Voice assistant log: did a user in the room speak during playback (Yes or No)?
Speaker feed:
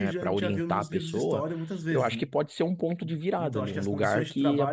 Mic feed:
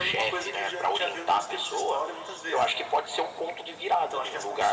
No